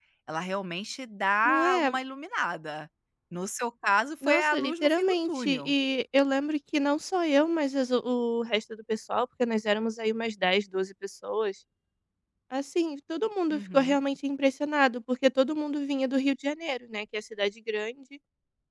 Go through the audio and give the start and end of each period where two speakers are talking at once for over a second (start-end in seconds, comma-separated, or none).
4.2-5.7